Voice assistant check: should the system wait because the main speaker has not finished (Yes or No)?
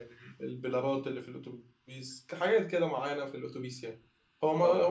Yes